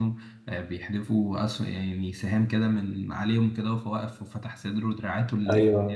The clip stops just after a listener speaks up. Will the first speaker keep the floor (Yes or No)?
No